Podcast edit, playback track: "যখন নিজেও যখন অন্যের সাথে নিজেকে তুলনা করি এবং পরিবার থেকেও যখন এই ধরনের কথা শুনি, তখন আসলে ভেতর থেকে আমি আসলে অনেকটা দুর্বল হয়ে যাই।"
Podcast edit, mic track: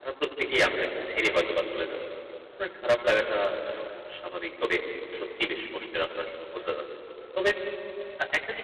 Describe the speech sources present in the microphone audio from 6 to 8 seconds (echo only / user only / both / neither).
user only